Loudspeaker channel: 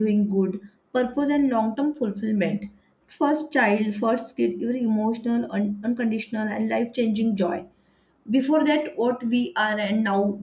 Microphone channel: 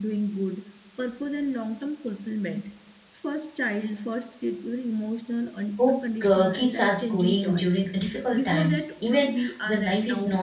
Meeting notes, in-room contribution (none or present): present